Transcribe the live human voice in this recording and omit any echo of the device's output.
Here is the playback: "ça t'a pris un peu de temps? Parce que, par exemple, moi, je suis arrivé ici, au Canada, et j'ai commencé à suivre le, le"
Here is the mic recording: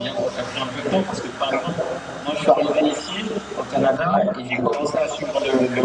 none

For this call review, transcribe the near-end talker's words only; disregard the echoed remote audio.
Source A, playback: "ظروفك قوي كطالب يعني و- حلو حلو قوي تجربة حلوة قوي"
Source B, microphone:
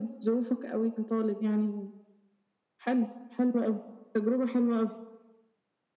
none

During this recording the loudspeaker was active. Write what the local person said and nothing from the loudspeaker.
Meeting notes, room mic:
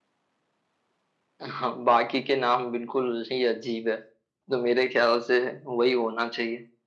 none

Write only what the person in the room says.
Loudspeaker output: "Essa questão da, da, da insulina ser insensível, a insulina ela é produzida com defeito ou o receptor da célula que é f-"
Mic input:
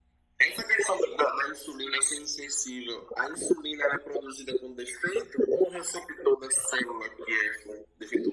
none

